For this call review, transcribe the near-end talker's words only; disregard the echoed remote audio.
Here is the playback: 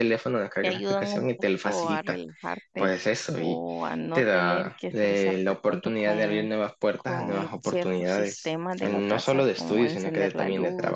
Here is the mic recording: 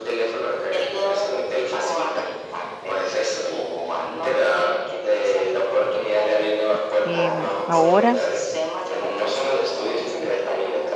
em, ahora

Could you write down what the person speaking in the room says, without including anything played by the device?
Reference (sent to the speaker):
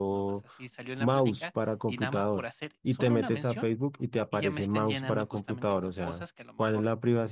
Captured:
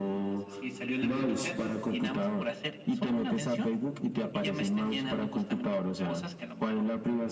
none

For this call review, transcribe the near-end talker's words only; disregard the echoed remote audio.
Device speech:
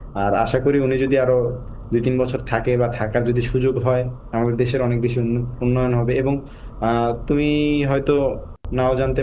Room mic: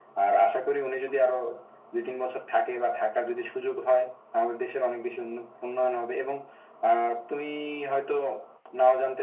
none

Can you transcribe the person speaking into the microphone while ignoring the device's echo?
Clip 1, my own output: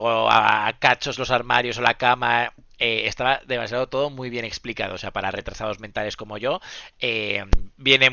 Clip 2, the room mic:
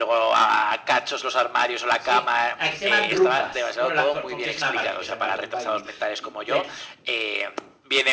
Sí, Aquí se llaman rumbas. Bueno, la- porque es una marca que se llama rumba y, y- y aquí

